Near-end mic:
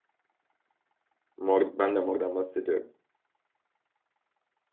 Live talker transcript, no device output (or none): Mor, ben de mordan bahsediyorum.